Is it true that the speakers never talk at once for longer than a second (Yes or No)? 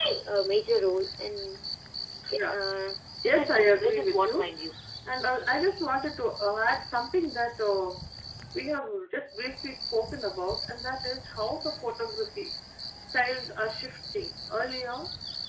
No